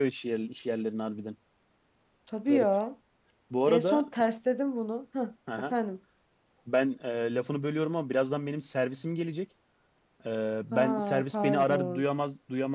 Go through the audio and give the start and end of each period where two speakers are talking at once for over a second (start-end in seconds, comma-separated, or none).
10.7-12.0